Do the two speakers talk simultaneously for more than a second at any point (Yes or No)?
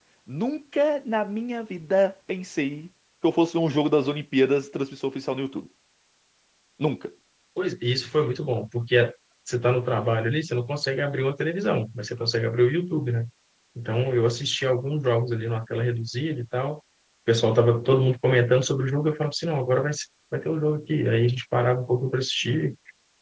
No